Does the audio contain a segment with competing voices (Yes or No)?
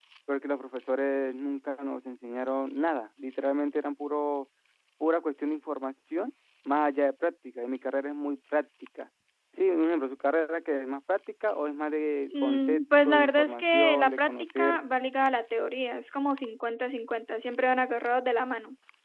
Yes